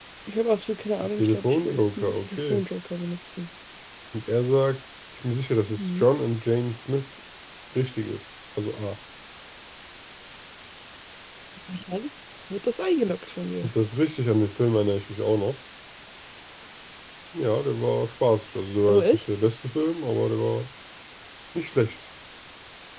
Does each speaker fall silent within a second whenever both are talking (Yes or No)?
No